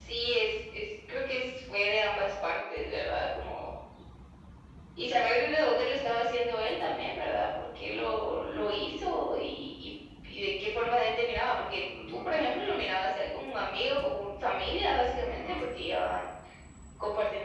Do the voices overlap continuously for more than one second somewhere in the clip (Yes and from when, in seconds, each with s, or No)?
No